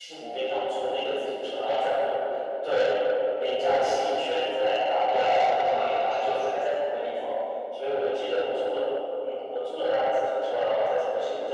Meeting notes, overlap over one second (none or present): present